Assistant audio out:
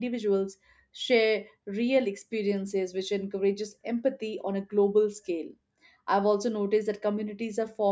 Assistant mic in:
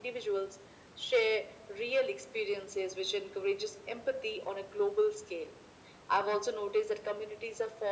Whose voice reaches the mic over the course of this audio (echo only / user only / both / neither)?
echo only